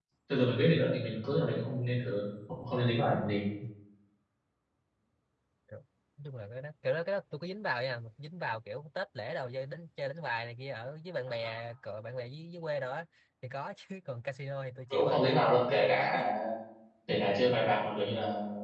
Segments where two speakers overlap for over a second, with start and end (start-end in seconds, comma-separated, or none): 14.9-16.2